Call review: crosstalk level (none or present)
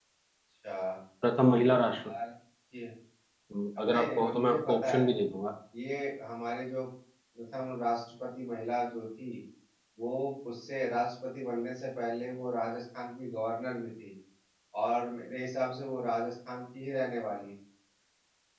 present